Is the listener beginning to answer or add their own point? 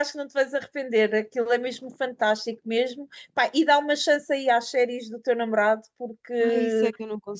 Yes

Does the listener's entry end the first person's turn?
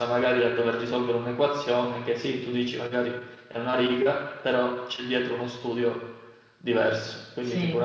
Yes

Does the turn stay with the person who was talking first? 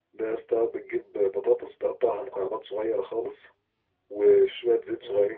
Yes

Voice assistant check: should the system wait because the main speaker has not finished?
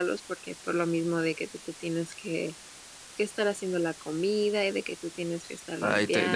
No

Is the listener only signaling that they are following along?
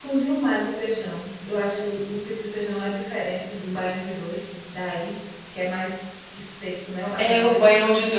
No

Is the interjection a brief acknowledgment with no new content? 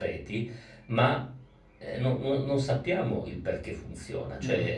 No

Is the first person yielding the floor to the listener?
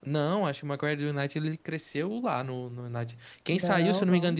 No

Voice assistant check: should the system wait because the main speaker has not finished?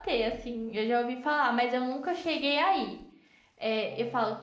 Yes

